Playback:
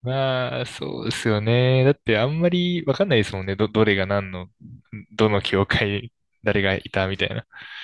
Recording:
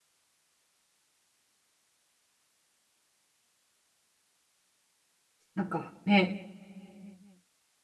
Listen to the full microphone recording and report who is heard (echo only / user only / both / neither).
user only